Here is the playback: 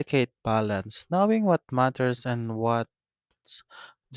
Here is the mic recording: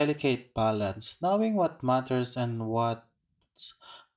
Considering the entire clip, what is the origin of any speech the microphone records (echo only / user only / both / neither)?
echo only